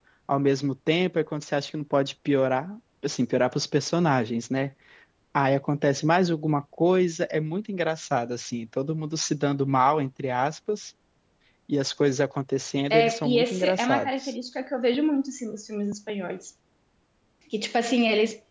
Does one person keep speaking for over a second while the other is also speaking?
Yes, from 12.9 s

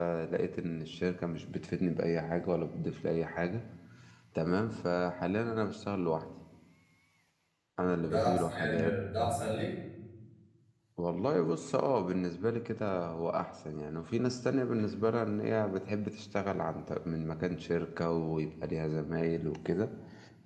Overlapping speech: Yes, from 7.8 s

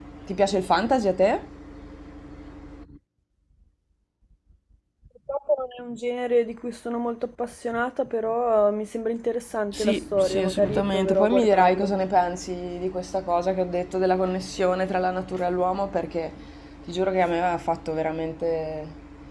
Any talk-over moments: Yes, from 9.7 s

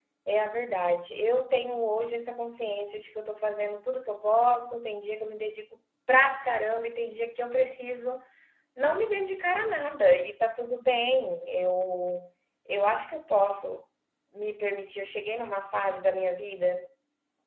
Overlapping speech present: No

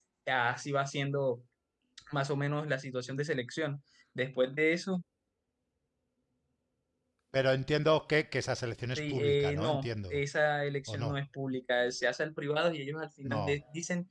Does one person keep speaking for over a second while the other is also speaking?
Yes, from 9.0 s

